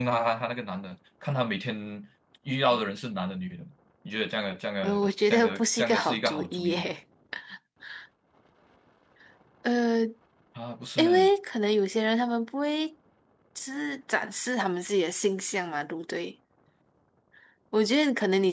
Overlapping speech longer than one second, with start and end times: 4.8-6.9

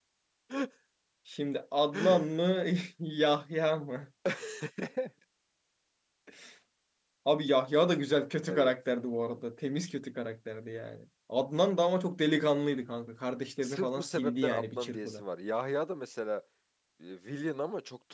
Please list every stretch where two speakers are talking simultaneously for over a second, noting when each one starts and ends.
13.6-15.2

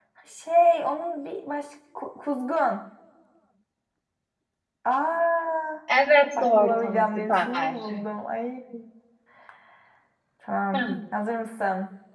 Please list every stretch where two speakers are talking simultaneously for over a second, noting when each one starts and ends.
6.4-7.7

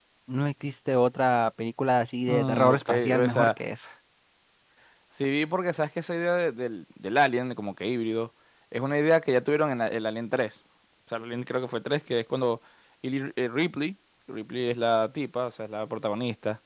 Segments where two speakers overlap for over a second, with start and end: 2.3-3.5

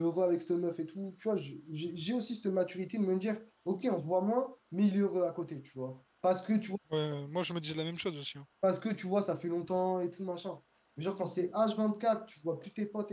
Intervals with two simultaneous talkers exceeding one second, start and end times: none

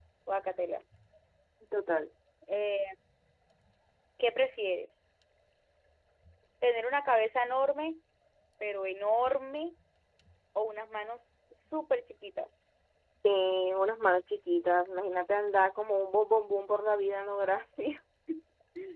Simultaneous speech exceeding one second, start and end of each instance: none

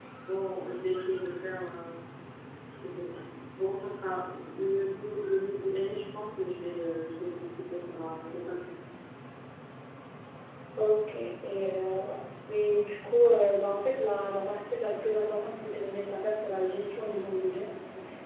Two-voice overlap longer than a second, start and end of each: none

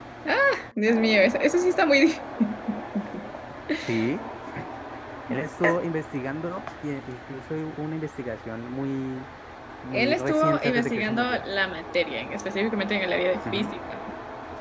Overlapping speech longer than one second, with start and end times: 9.9-11.4

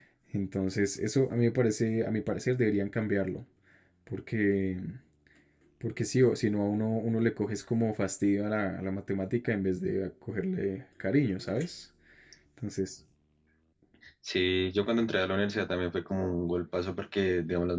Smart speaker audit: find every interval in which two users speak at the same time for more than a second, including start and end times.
none

